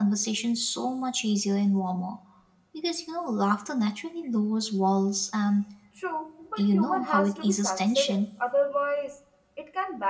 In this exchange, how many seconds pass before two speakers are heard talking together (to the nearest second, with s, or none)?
7 s